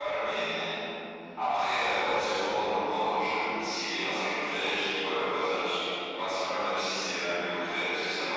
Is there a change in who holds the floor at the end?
Yes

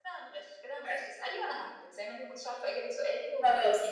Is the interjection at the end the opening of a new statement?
Yes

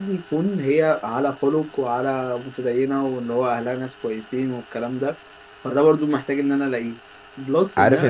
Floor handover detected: Yes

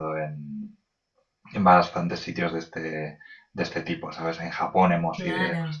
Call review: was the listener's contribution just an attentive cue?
Yes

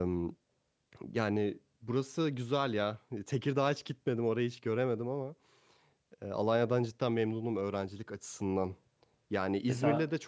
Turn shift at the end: No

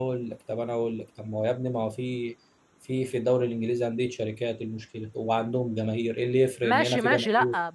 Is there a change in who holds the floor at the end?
Yes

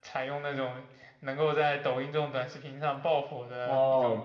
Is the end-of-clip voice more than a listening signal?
Yes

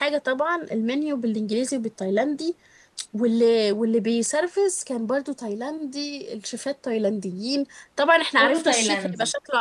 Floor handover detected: No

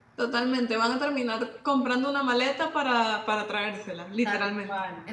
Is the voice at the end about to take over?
Yes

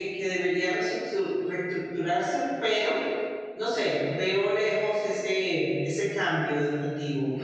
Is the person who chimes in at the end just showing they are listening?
No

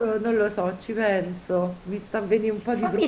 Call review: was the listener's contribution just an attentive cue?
No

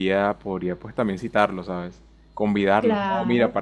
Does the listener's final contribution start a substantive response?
No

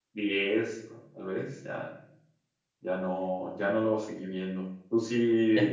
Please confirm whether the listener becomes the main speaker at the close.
No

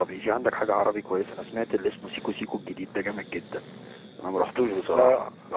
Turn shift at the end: No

